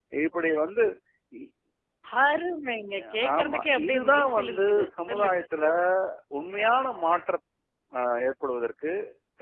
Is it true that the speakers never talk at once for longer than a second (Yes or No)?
No